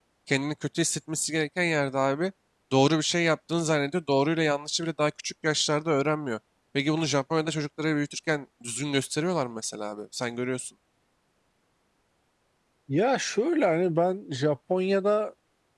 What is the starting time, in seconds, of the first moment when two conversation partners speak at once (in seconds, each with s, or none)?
none